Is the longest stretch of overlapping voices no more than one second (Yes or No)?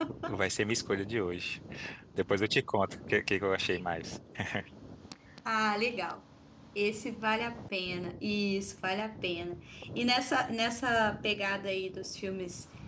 Yes